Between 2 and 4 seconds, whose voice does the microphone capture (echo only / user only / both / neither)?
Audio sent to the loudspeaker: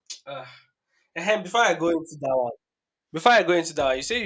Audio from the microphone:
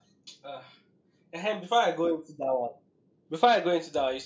echo only